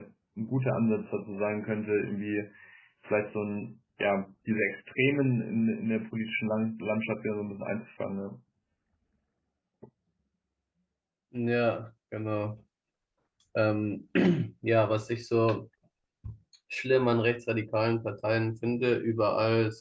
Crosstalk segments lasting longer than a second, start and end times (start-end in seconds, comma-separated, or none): none